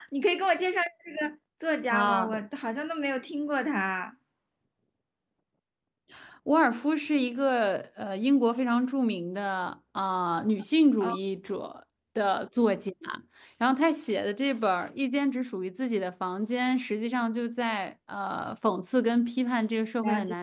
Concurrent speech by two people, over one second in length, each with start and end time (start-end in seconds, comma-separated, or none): none